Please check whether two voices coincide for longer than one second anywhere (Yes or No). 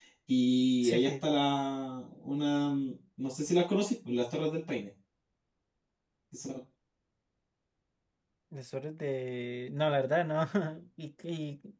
No